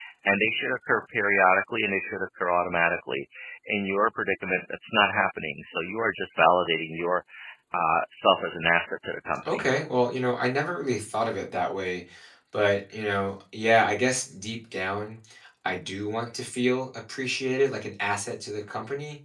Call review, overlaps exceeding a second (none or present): none